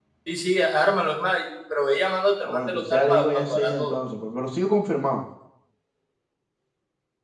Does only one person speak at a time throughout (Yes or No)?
No